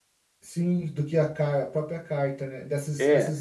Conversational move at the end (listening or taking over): taking over